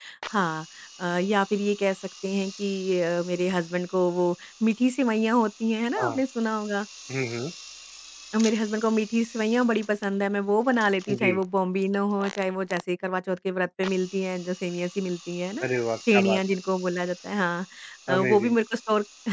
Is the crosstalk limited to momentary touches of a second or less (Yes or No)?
Yes